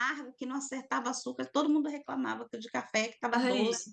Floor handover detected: No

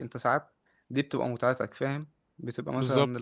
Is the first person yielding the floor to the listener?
No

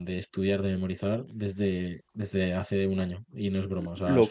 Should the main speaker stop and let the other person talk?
Yes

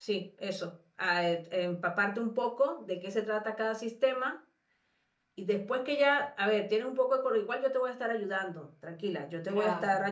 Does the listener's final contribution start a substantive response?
No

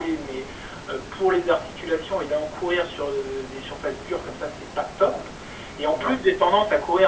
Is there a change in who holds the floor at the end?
No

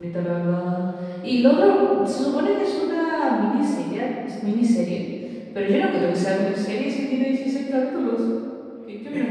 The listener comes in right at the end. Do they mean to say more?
Yes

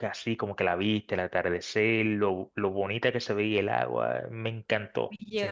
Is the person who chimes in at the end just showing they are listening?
No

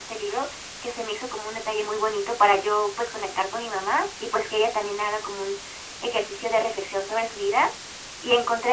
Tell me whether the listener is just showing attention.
Yes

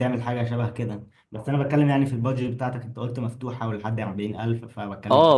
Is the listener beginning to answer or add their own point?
Yes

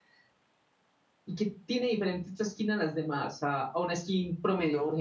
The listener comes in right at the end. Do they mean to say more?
Yes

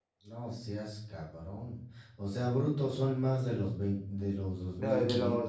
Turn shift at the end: Yes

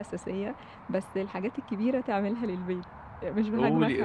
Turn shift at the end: Yes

